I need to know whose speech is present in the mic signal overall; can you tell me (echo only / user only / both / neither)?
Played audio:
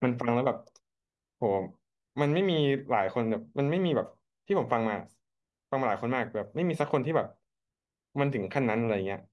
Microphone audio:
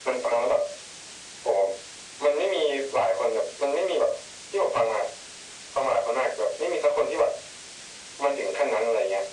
echo only